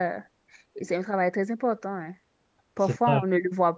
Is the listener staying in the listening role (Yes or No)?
Yes